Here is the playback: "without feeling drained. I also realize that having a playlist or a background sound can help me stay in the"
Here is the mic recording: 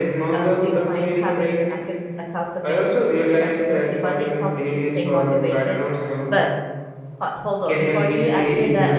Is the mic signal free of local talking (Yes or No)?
No